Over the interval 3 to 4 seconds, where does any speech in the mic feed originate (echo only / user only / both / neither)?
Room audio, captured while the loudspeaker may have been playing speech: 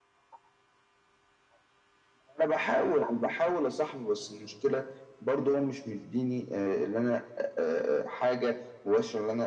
echo only